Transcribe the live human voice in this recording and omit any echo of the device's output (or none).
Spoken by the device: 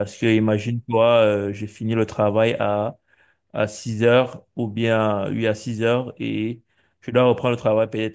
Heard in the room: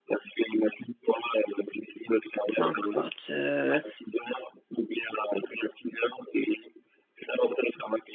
peu importe, euh,